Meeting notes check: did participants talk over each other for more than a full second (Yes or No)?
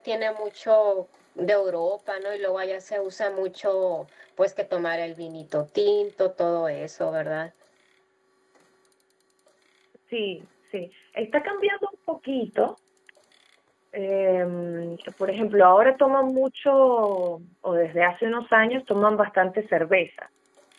No